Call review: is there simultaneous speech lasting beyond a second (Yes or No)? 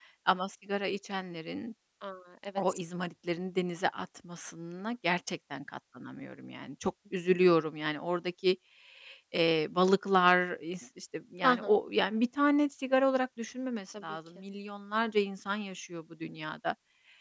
No